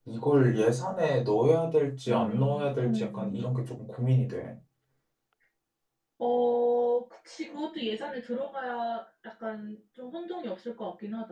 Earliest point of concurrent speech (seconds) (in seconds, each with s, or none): 2.1 s